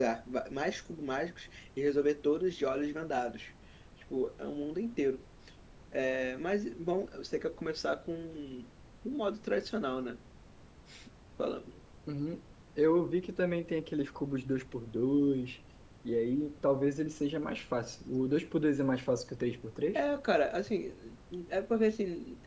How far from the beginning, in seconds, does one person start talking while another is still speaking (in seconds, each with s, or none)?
none